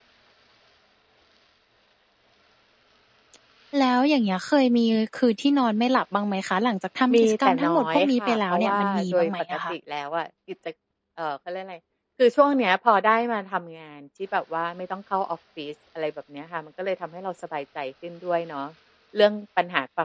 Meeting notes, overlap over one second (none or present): present